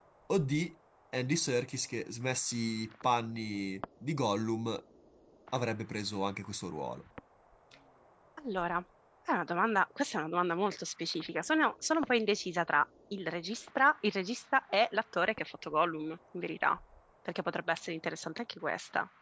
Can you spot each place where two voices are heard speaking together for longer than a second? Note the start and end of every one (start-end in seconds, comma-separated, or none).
none